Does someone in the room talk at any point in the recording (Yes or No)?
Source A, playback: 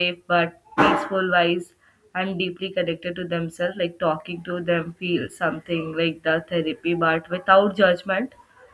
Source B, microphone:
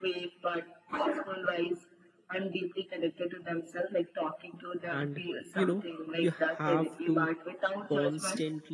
Yes